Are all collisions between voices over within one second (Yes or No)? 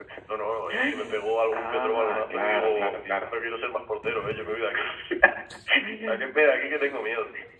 No